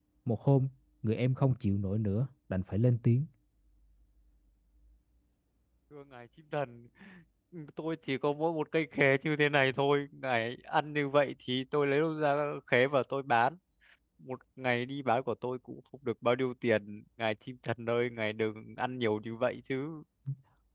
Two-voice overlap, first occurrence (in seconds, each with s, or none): none